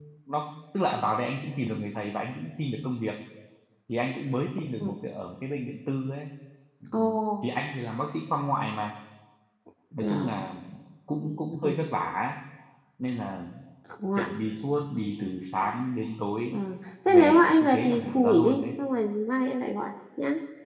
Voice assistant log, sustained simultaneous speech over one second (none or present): present